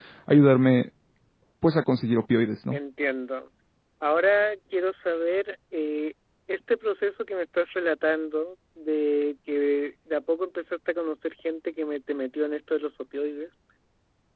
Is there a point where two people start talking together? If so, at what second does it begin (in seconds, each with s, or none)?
none